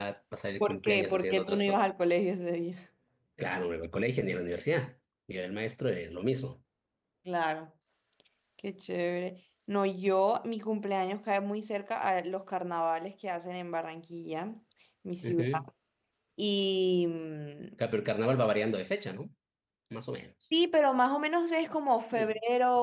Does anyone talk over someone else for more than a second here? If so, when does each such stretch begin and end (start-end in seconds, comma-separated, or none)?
0.6-1.8